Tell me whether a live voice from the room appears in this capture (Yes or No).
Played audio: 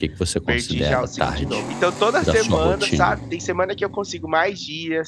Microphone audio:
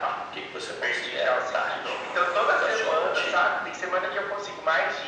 No